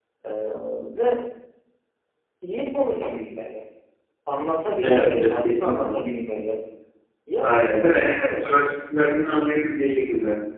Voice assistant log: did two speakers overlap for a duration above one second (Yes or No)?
Yes